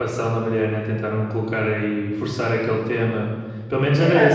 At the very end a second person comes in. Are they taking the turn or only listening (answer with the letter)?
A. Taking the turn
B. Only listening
B